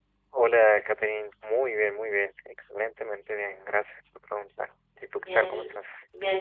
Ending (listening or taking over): taking over